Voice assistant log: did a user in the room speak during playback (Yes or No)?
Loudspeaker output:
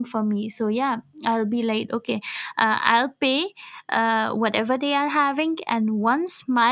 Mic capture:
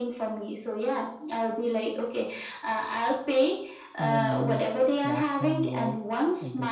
Yes